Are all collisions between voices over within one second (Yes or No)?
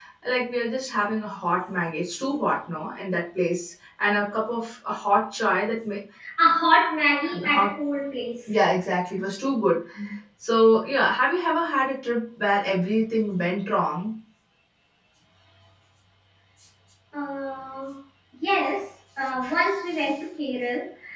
Yes